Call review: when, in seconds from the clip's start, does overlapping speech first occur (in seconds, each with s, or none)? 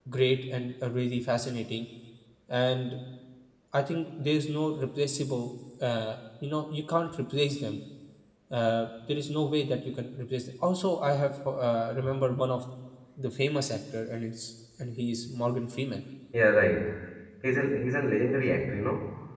none